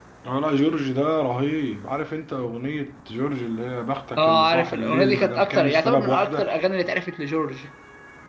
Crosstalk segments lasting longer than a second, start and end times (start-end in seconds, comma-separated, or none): 4.2-6.5